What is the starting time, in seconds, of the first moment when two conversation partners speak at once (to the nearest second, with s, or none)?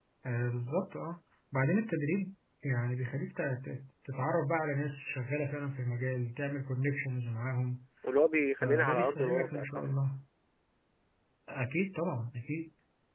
9 s